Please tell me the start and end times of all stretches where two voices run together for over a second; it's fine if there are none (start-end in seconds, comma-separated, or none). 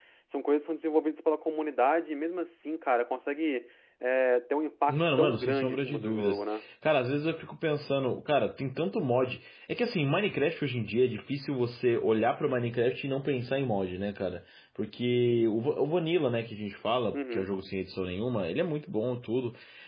4.9-6.6